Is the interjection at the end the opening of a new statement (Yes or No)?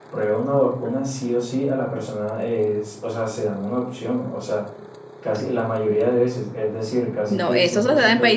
Yes